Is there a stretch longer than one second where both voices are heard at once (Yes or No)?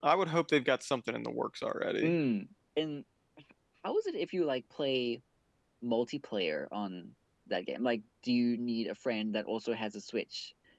No